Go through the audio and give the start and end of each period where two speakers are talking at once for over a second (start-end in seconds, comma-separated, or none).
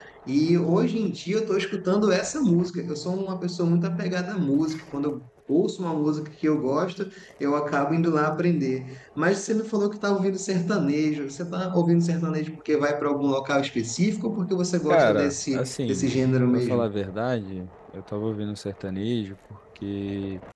14.9-16.9